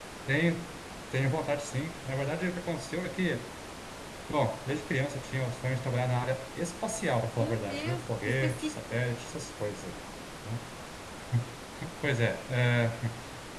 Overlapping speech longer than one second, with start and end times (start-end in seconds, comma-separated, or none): 7.4-9.0